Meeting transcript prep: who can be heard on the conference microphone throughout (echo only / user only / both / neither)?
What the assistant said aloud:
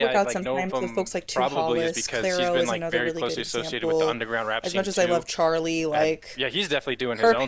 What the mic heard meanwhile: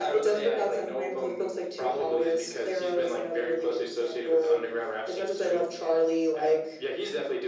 echo only